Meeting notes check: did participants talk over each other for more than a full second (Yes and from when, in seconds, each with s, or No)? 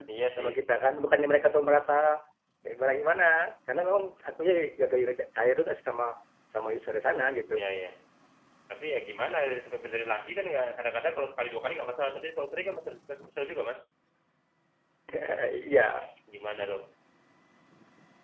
No